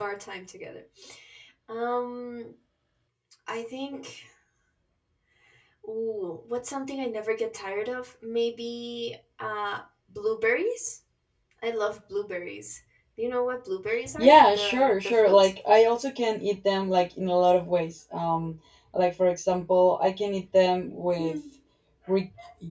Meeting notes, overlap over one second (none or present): present